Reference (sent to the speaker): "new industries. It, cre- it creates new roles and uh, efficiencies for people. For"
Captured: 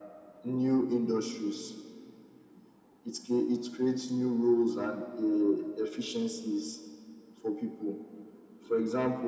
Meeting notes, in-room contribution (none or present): none